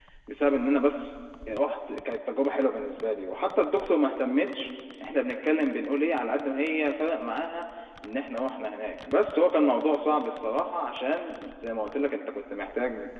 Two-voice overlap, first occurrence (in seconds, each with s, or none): none